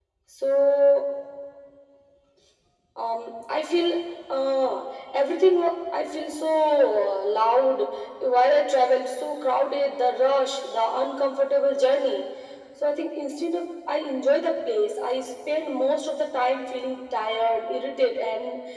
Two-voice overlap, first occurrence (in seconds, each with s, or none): none